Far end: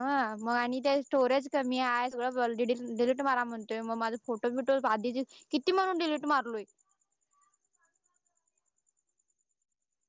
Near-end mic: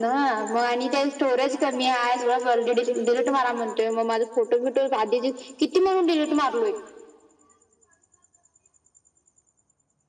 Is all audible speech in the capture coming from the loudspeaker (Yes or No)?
Yes